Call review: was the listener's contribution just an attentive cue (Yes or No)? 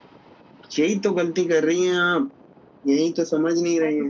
Yes